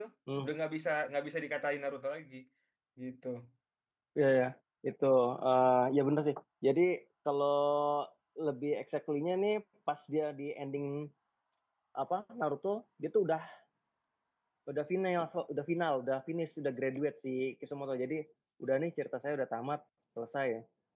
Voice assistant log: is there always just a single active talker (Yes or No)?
Yes